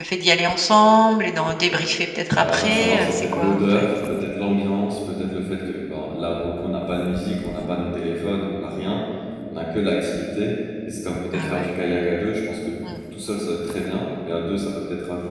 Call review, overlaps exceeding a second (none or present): present